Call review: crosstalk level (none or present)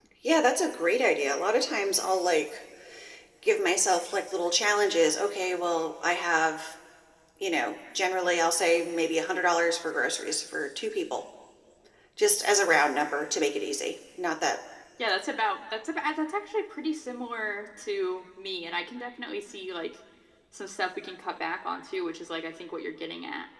none